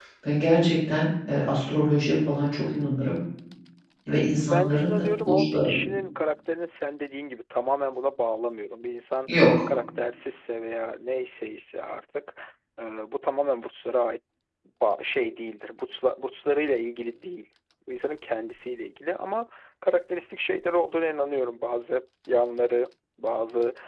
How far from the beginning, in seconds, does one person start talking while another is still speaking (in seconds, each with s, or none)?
4.5 s